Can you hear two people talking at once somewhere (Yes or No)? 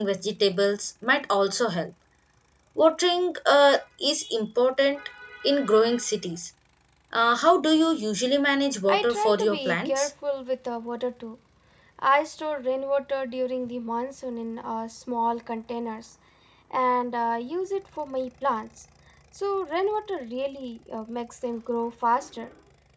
Yes